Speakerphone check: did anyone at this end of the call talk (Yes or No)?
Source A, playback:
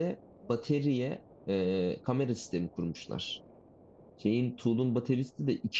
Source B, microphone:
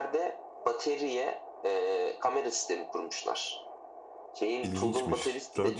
Yes